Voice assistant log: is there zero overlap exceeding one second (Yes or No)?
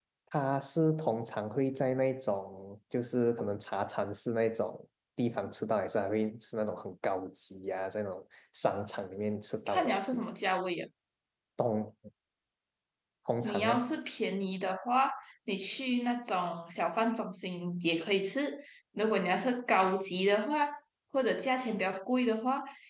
Yes